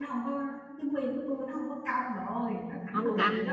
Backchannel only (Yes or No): No